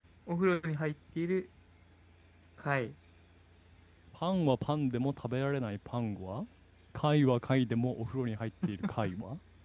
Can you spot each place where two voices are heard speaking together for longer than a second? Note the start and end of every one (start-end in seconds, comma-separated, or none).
none